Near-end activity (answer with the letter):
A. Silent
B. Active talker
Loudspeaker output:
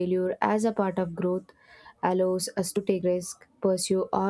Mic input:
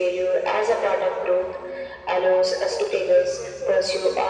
B